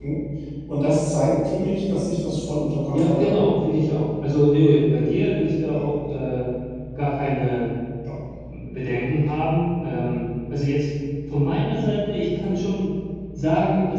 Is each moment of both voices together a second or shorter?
Yes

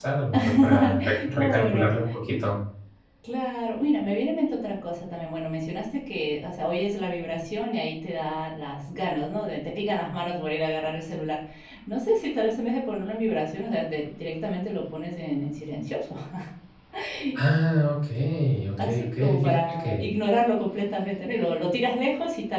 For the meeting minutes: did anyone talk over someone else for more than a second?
Yes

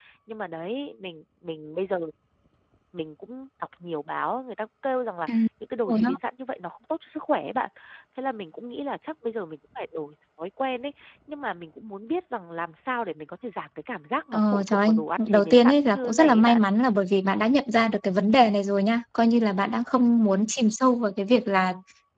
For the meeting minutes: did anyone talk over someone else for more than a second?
Yes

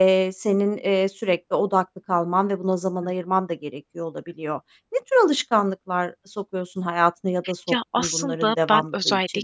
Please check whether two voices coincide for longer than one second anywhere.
Yes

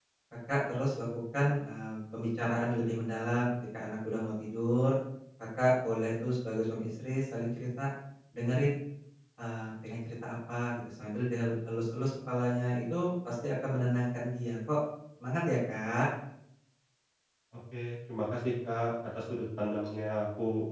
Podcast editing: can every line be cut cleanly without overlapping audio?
Yes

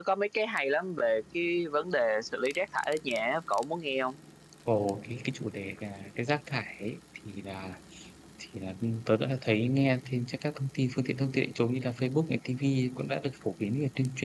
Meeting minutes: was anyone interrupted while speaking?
No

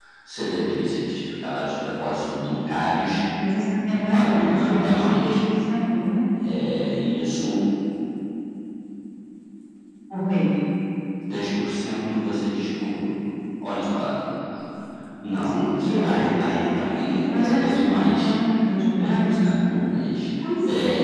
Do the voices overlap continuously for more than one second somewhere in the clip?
Yes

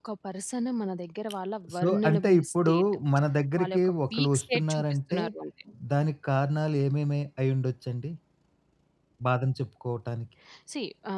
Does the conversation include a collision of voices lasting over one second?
Yes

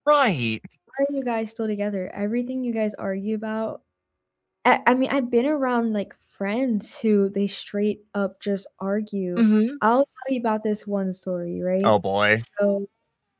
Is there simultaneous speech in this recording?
No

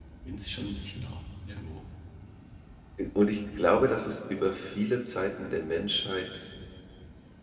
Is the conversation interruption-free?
Yes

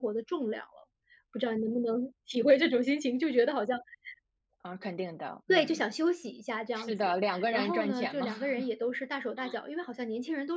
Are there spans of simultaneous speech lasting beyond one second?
Yes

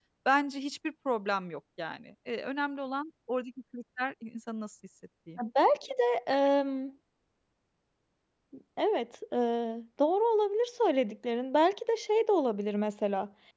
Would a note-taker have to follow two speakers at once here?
No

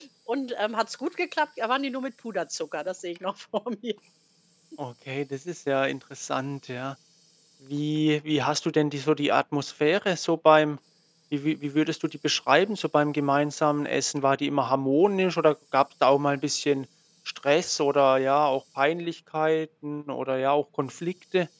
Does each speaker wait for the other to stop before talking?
Yes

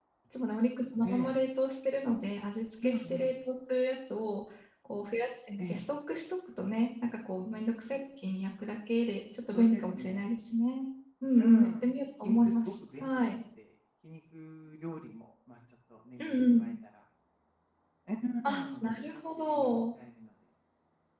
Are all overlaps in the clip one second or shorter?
No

